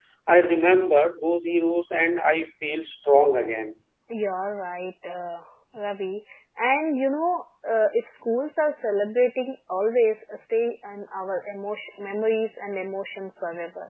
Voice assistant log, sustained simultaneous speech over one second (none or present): none